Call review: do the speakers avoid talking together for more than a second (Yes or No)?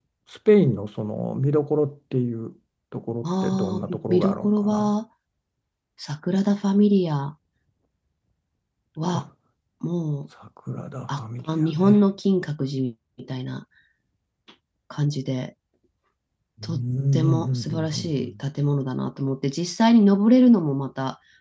No